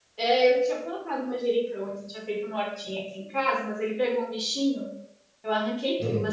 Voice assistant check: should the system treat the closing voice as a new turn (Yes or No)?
No